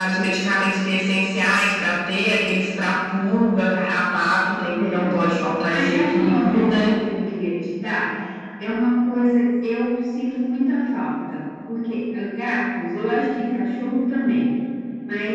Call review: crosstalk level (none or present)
present